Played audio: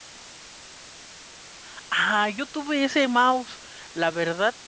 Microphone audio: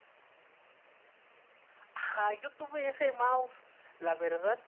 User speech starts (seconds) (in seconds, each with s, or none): none